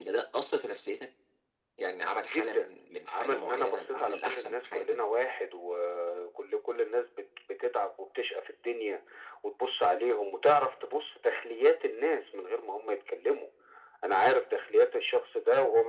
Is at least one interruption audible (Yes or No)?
Yes